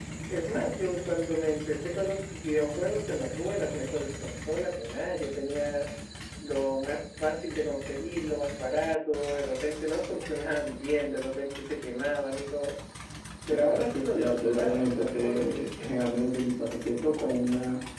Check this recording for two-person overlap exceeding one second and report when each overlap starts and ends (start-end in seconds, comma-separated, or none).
13.5-15.5